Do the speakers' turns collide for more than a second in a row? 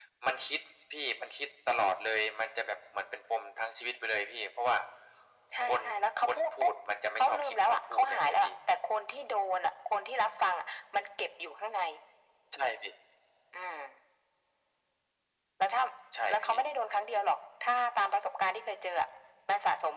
Yes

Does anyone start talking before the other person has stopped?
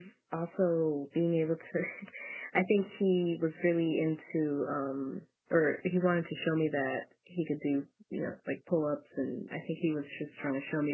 No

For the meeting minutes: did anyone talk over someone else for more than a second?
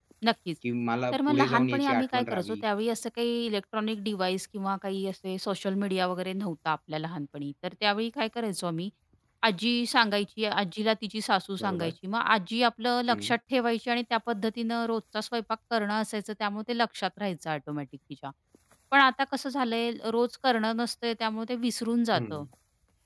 Yes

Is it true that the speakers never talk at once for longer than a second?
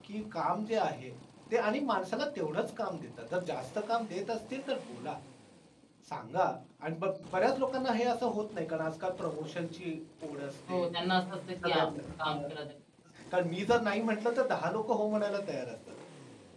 Yes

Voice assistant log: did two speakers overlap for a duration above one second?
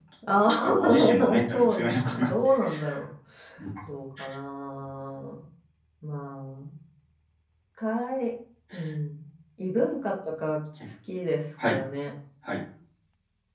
Yes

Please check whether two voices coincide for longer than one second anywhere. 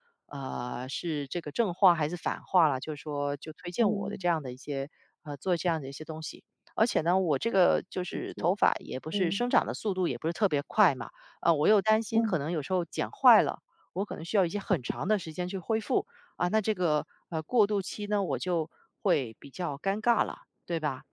No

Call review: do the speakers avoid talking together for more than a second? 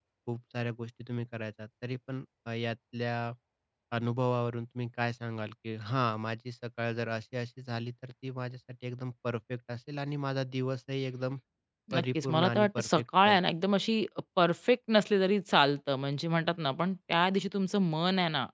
No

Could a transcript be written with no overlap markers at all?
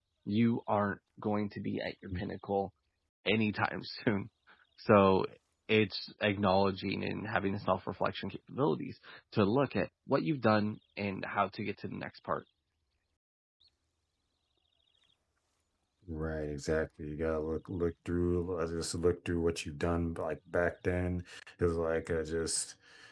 Yes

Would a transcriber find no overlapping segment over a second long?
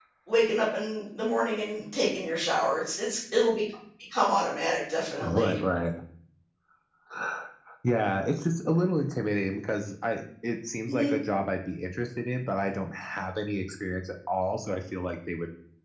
Yes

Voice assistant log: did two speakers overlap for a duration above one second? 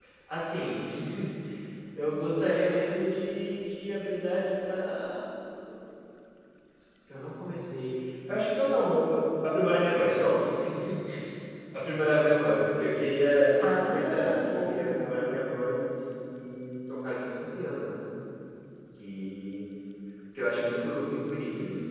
Yes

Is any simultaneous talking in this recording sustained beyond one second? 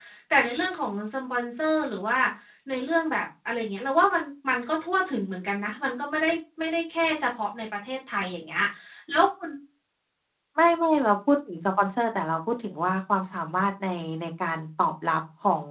No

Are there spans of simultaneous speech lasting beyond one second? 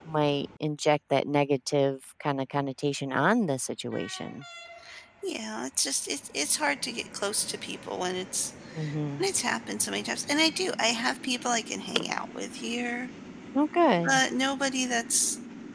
No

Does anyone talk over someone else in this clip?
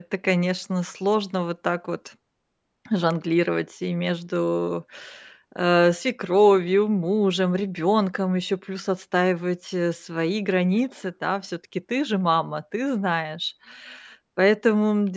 No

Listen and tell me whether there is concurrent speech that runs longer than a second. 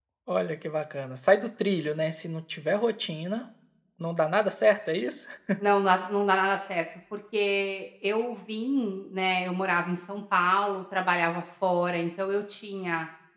No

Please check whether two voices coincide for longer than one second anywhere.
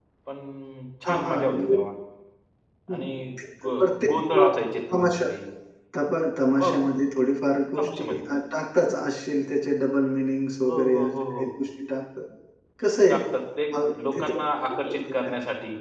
Yes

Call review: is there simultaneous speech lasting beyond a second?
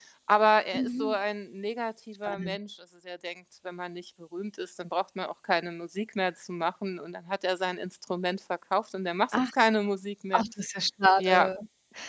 No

